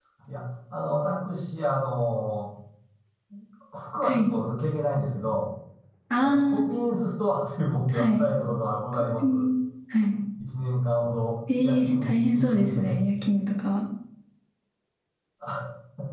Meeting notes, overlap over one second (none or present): present